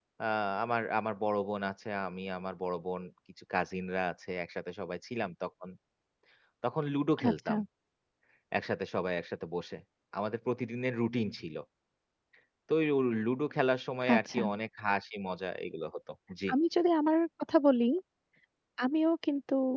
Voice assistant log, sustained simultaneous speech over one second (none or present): none